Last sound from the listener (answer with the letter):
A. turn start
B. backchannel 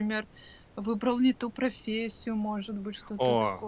A